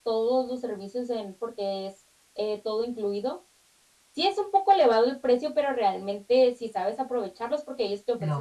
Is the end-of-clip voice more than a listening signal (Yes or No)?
No